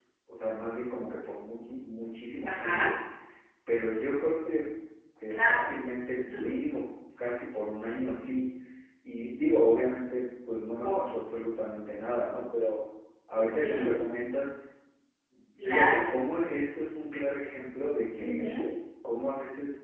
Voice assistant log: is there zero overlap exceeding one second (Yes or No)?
Yes